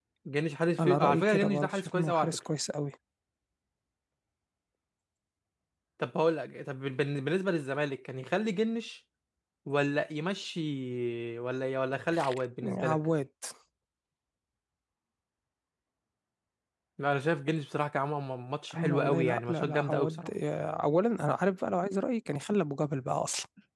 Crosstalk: present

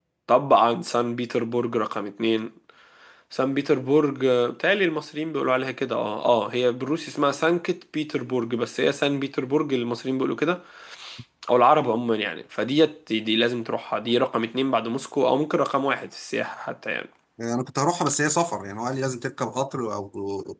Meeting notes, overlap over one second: none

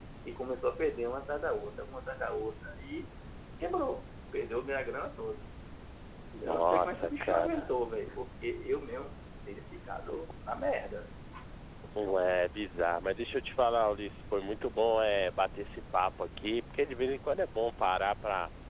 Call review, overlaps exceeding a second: present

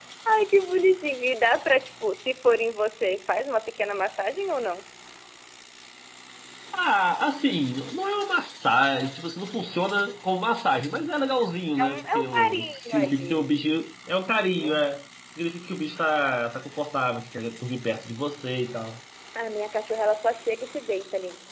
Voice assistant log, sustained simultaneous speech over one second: present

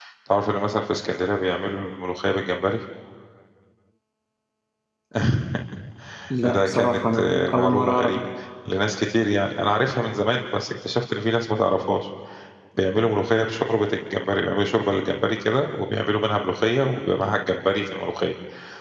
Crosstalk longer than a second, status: present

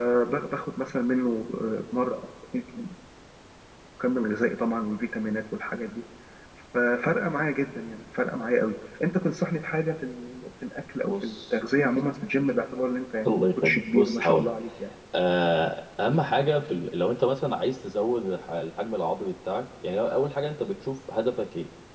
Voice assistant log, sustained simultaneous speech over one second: present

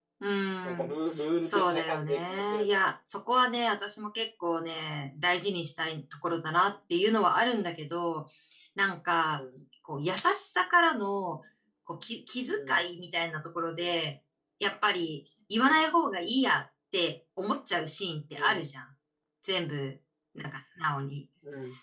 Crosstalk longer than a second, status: present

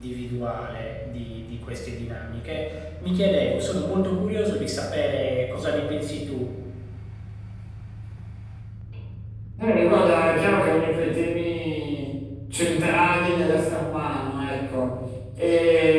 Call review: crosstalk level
none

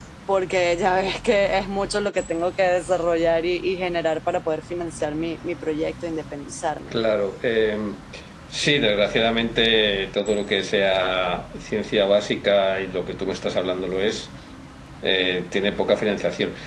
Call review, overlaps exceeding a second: none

